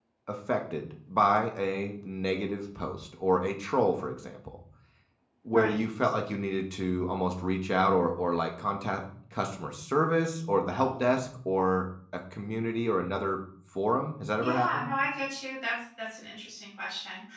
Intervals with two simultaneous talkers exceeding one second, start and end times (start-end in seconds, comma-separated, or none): none